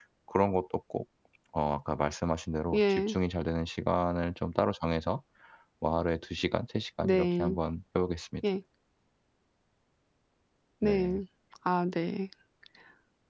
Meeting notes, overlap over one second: none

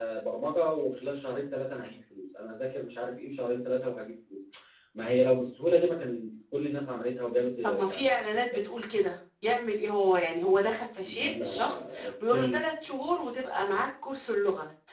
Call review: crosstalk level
present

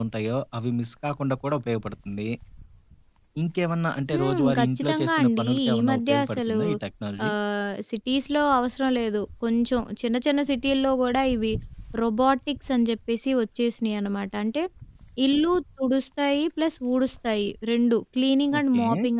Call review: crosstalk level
present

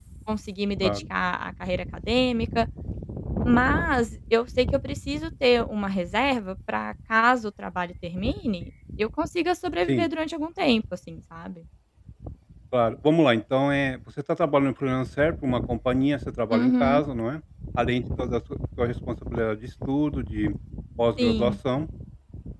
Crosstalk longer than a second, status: none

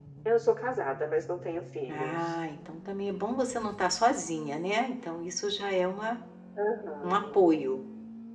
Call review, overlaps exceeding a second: none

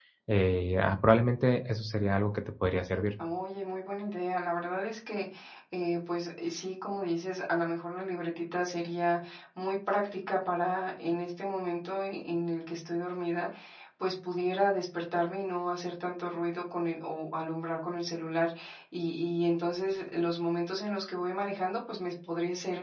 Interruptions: none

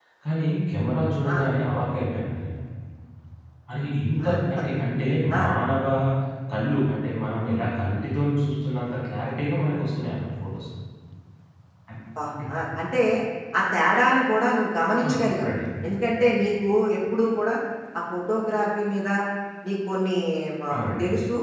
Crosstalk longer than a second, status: none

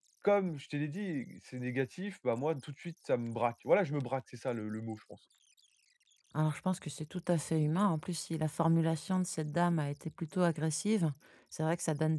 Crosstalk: none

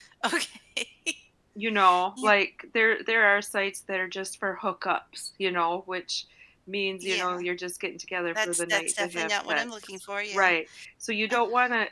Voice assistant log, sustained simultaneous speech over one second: present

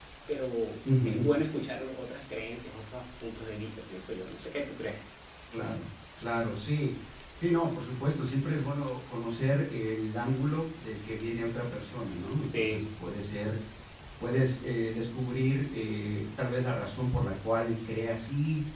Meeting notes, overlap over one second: none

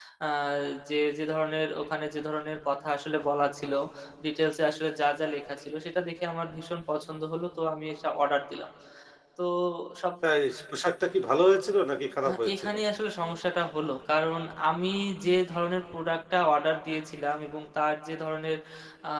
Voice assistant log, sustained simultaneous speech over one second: none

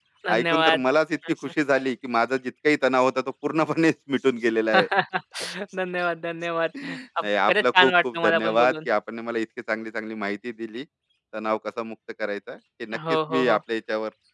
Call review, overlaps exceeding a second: present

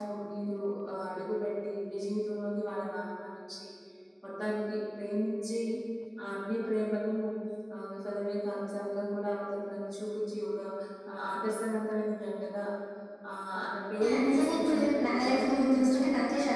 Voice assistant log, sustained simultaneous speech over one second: present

